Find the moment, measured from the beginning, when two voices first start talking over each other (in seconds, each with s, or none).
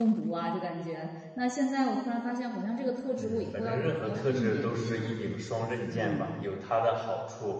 3.2 s